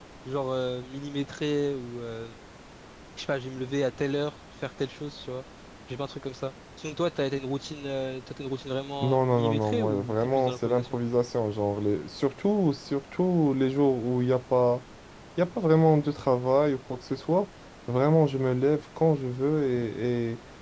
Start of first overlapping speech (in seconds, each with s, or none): 9.0 s